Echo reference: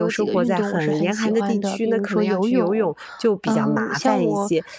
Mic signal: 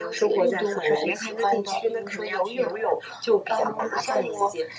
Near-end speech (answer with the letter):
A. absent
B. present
A